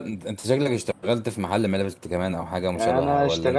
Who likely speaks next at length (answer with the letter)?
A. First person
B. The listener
B